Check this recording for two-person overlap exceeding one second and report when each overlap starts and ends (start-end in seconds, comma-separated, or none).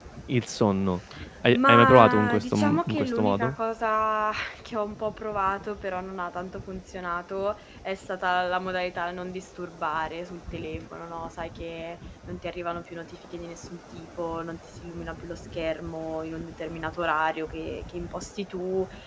1.5-3.5